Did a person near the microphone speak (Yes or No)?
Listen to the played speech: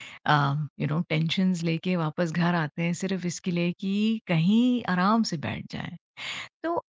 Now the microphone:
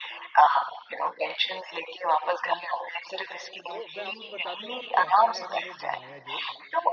Yes